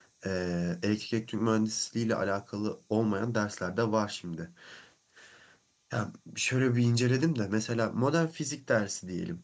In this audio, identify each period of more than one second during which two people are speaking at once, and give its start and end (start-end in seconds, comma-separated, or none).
none